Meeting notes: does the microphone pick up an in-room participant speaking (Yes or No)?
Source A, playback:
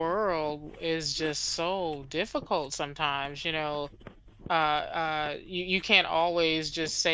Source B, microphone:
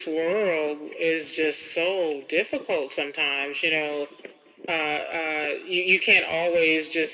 No